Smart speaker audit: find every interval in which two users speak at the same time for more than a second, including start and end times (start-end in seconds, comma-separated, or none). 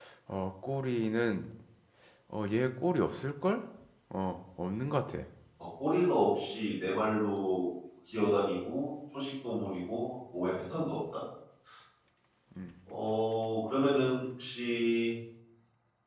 none